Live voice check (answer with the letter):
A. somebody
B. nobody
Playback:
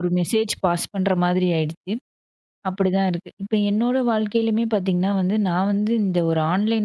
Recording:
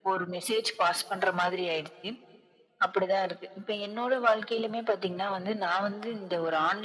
B